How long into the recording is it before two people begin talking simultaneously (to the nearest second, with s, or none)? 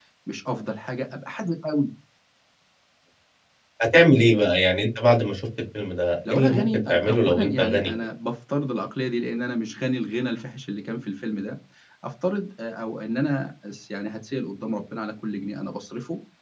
6 s